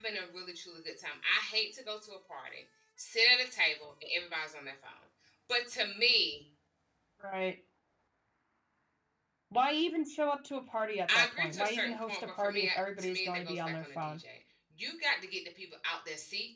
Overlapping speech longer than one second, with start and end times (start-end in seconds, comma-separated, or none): 11.2-14.2